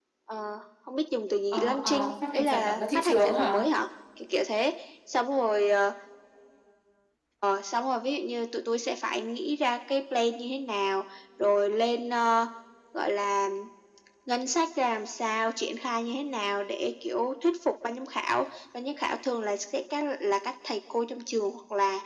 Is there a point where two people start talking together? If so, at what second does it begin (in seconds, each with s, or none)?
1.5 s